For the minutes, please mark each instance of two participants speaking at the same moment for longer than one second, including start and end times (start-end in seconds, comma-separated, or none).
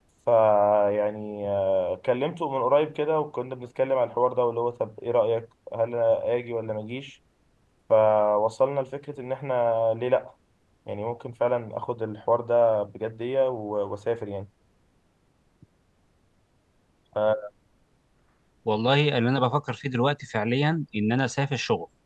none